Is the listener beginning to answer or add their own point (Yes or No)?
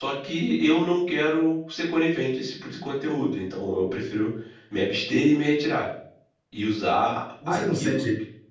Yes